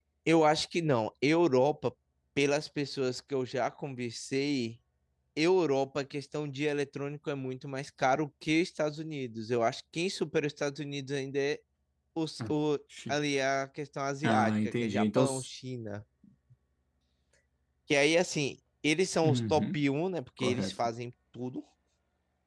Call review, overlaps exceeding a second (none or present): present